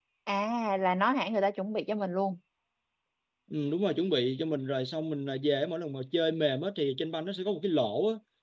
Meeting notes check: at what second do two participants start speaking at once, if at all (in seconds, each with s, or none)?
none